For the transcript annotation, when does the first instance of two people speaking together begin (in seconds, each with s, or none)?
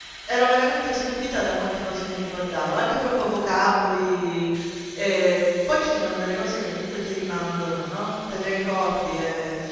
none